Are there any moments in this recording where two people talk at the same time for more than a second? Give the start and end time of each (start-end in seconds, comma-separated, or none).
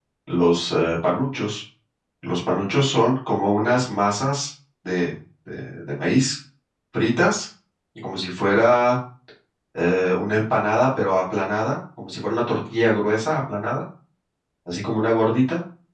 none